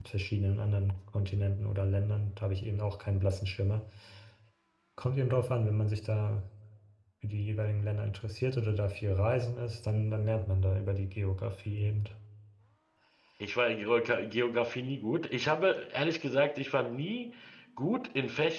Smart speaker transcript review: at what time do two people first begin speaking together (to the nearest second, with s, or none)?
none